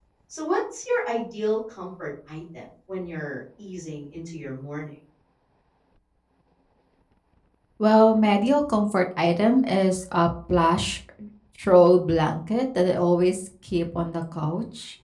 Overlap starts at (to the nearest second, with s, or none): none